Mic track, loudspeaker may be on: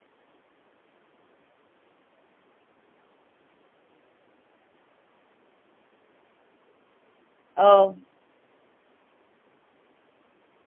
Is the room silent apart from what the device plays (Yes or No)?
No